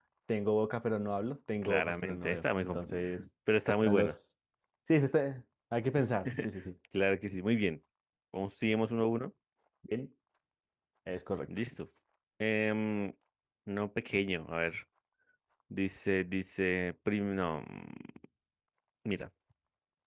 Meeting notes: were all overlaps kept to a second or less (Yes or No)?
No